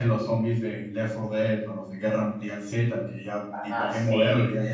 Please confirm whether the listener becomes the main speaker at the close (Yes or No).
No